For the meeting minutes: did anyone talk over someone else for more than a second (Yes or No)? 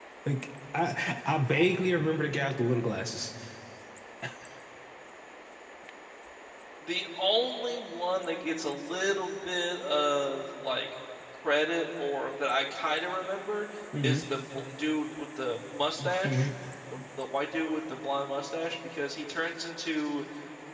No